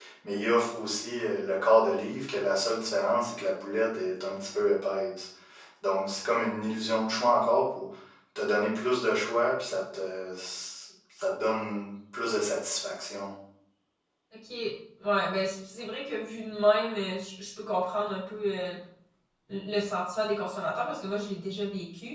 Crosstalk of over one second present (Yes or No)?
No